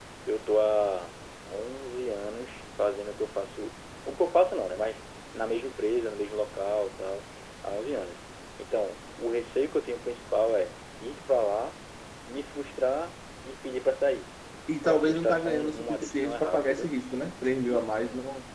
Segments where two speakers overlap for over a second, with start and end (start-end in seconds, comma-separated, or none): 14.8-16.9